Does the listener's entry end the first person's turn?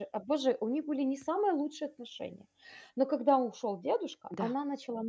No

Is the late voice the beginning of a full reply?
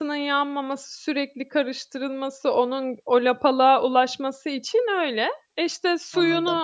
No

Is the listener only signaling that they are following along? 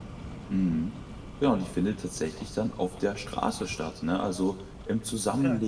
Yes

